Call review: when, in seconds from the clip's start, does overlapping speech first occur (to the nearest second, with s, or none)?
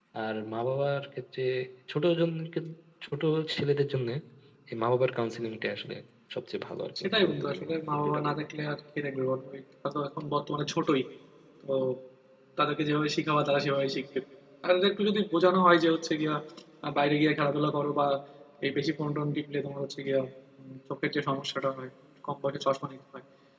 7 s